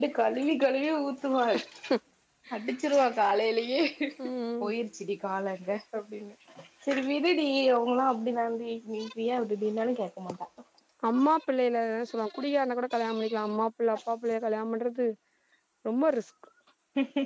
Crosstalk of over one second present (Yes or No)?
No